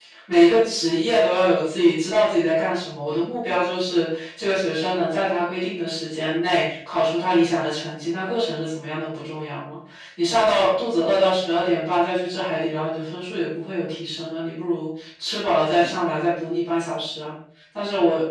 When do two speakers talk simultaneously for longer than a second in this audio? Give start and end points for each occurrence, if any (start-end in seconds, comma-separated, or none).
none